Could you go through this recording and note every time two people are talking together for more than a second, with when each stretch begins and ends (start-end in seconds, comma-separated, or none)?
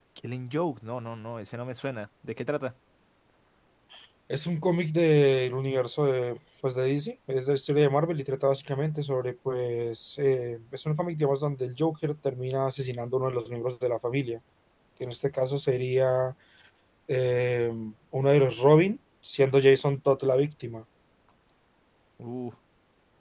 none